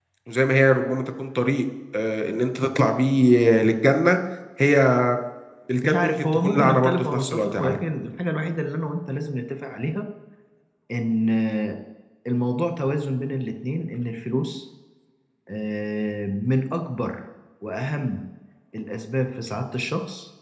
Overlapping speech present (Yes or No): Yes